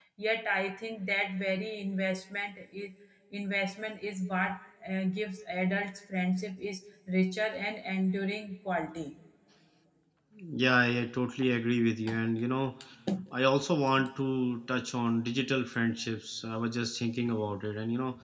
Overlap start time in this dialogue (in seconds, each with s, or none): none